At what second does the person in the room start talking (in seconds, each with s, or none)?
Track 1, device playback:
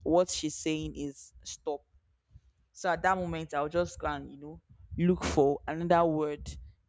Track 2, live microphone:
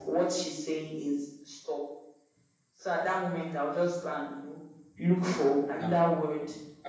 5.8 s